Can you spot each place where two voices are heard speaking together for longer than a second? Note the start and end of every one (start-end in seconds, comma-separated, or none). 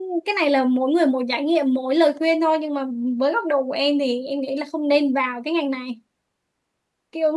none